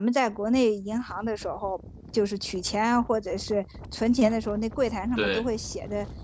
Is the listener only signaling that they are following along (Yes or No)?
Yes